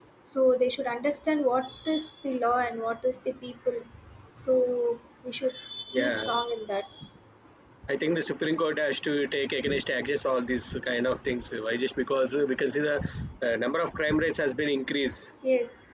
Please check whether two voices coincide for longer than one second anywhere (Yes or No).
No